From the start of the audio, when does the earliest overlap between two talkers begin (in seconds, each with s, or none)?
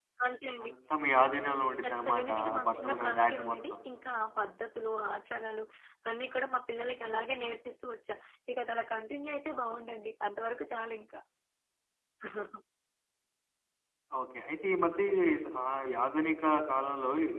1.8 s